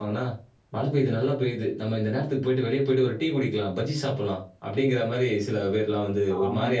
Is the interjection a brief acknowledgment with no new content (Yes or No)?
No